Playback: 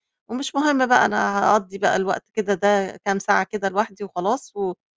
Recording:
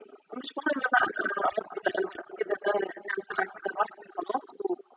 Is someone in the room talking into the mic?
No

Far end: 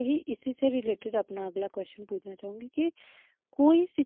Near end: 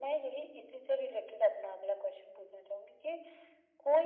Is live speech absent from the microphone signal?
Yes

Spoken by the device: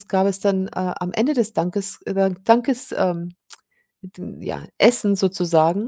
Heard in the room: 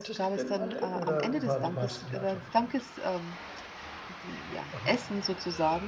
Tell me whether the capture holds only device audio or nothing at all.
No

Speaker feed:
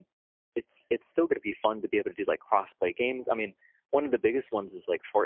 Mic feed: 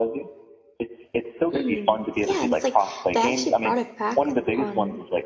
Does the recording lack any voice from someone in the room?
No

